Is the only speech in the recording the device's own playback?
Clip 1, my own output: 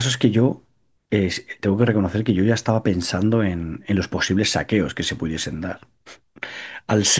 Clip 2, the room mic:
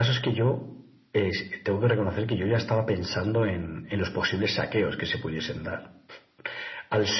Yes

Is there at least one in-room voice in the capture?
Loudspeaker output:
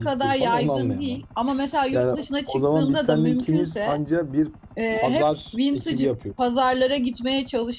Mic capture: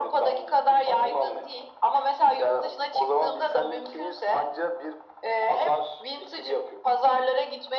No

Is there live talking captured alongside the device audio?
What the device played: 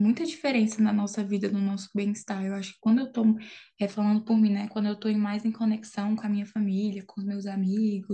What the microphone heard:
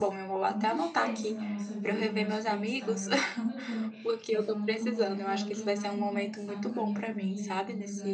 Yes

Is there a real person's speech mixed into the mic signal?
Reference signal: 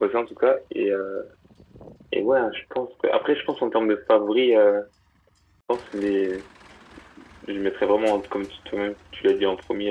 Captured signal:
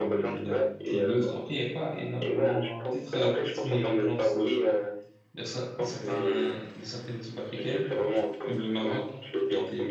Yes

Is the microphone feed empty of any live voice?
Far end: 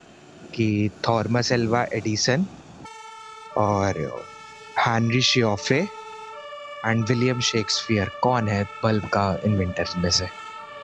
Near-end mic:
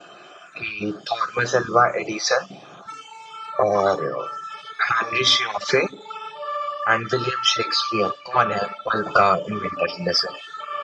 Yes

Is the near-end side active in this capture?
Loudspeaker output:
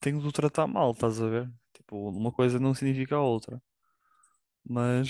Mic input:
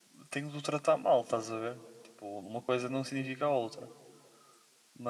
No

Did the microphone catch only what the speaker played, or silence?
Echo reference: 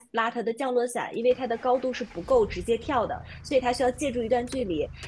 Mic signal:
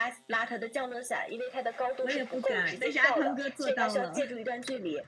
No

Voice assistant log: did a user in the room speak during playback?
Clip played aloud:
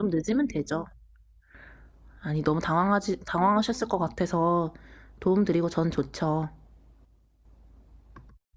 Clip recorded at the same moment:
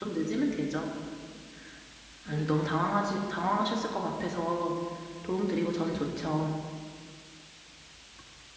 Yes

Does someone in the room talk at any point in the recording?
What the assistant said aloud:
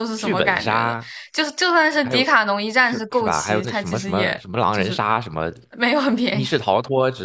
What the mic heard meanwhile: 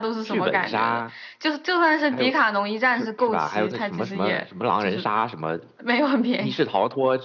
No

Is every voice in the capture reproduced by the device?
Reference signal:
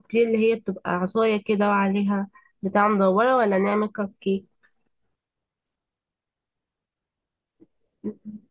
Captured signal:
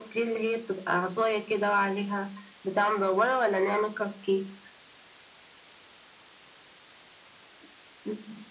Yes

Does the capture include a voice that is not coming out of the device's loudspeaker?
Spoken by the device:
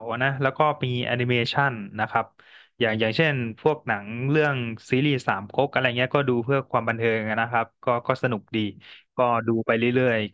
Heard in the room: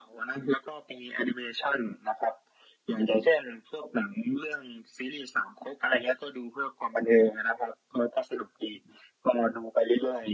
No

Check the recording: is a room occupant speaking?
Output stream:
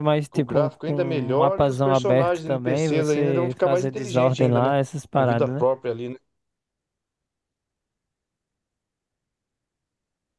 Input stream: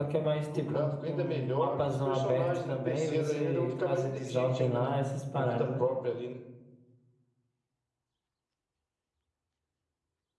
No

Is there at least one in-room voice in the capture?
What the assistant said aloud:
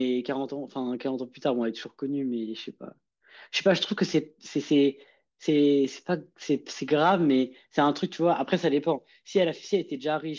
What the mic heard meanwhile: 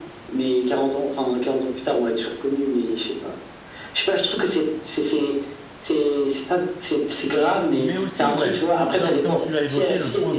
Yes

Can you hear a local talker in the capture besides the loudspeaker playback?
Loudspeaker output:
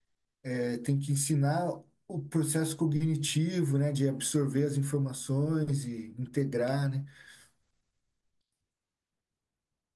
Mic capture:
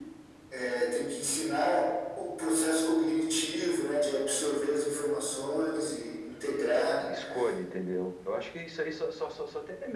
Yes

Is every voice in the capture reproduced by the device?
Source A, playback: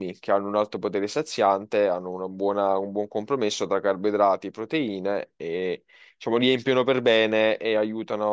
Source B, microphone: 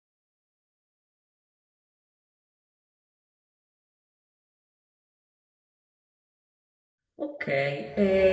No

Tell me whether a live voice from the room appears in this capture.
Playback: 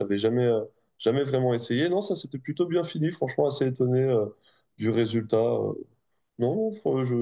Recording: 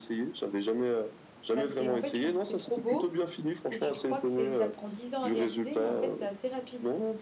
Yes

